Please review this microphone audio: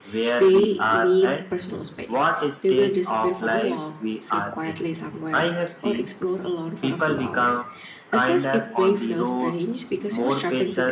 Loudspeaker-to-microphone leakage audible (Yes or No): Yes